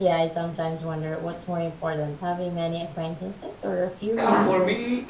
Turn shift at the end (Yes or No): Yes